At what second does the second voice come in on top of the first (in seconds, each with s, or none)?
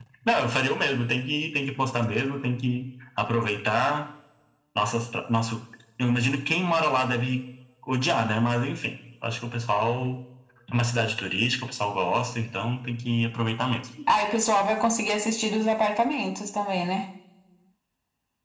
none